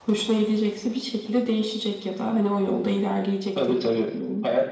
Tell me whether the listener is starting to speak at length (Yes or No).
Yes